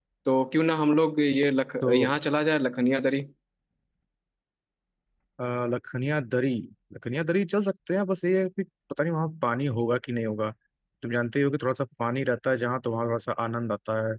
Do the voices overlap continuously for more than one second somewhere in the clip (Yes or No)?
No